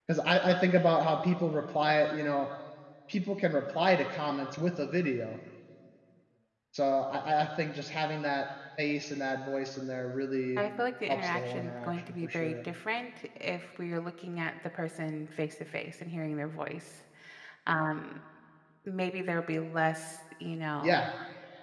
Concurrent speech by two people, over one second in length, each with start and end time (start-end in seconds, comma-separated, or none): 11.1-12.6